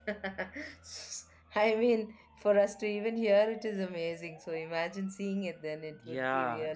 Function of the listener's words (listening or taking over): taking over